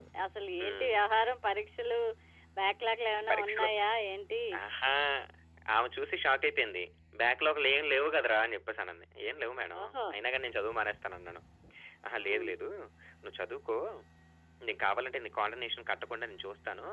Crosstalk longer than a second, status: none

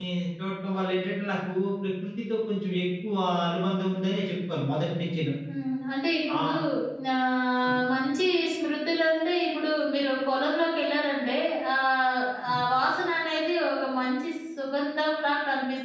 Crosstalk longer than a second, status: none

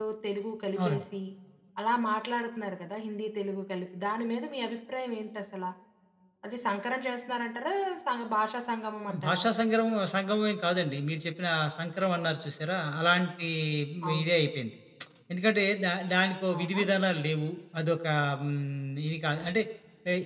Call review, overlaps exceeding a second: none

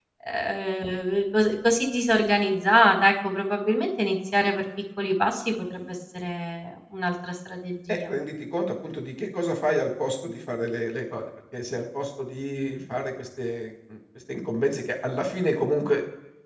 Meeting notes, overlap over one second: none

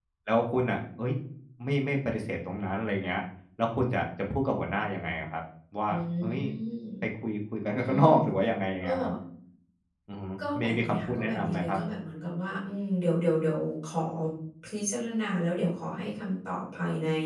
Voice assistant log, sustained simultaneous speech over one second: present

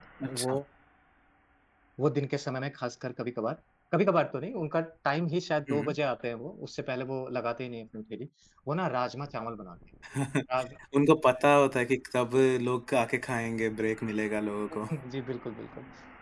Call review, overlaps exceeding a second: none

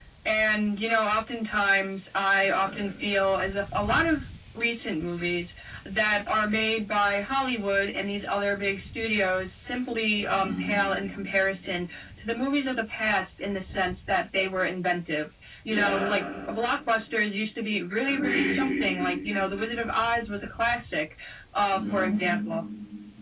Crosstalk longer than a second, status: none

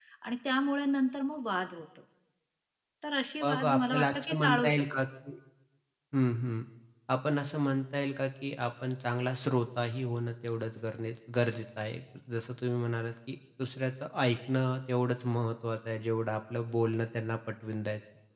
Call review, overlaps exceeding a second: present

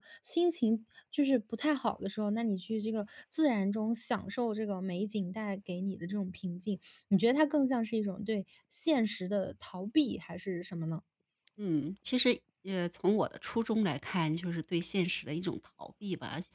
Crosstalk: none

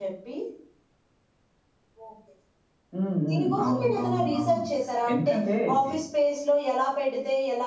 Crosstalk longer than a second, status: present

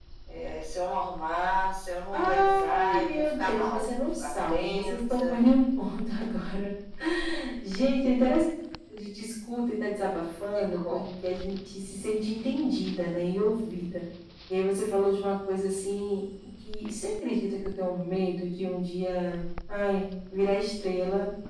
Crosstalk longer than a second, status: present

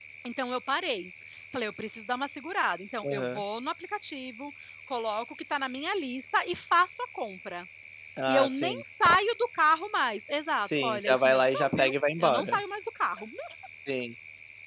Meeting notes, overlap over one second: present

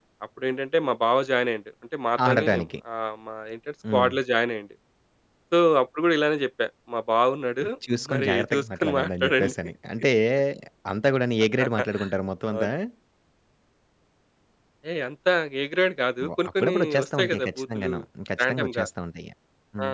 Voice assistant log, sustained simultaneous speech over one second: present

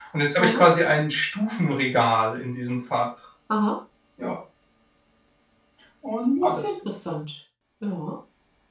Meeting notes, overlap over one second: none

